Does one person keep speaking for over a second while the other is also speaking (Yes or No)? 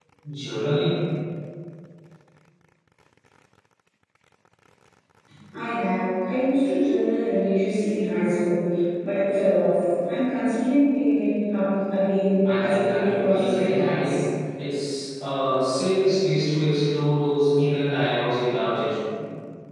Yes